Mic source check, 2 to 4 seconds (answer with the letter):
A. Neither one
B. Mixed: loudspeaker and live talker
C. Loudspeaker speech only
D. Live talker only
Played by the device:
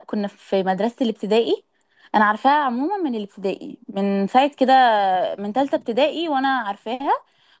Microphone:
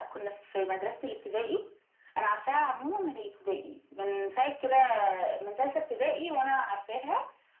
C